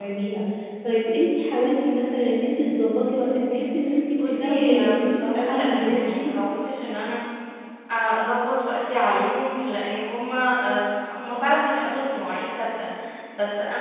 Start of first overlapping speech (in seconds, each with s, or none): 4.2 s